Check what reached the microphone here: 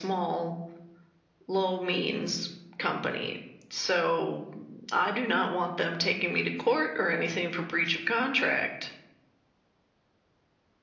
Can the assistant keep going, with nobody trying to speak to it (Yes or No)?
Yes